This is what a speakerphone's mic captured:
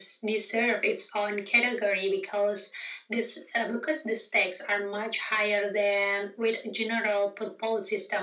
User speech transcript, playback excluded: none

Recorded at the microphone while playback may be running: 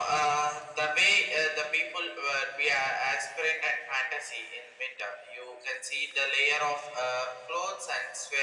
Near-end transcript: none

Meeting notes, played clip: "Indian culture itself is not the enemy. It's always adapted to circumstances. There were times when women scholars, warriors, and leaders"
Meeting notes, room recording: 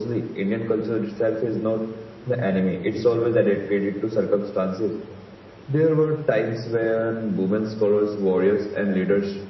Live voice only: none

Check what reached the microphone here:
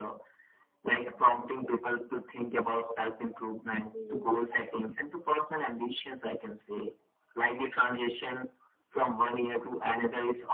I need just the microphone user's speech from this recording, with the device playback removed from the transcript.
Mhm.

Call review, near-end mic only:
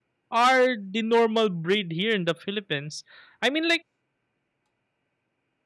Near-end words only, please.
are the normal breed here in the Philippines? I mean like

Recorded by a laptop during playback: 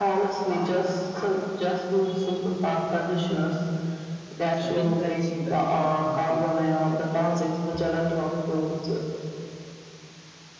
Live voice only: I've been glancing but nothing concrete.

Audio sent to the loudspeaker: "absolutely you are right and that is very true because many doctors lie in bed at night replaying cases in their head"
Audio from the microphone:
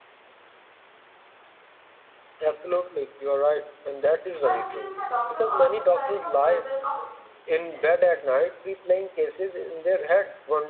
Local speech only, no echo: I feel the doctor also carry the burden of expectation

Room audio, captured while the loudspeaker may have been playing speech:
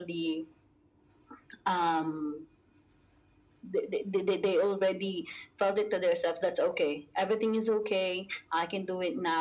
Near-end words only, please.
none

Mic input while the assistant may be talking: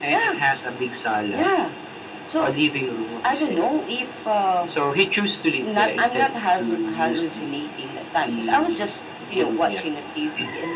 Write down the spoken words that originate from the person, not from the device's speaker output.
none

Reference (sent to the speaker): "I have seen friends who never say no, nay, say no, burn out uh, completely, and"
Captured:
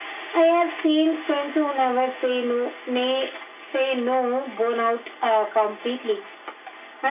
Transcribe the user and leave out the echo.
none

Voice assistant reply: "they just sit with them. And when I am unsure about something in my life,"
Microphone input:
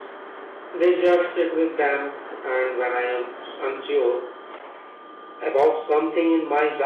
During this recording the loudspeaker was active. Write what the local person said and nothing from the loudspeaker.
none

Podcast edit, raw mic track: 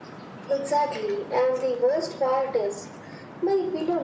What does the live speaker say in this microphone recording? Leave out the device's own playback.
none

